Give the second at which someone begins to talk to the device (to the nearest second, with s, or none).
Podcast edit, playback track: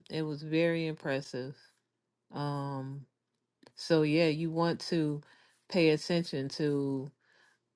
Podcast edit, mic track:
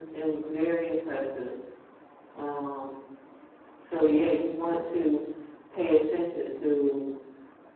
none